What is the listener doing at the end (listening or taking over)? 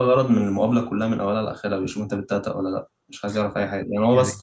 listening